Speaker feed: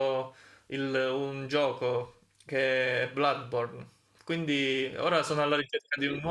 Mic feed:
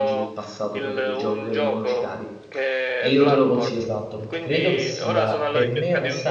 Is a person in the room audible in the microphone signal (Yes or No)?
Yes